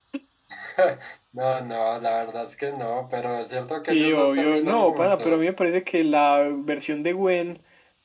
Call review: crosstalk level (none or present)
present